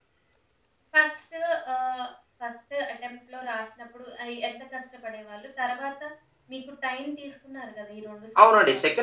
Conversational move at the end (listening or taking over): taking over